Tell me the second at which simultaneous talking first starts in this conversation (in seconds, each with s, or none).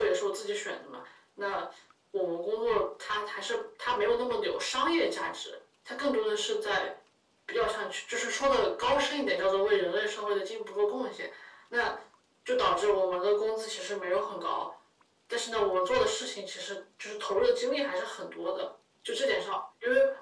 none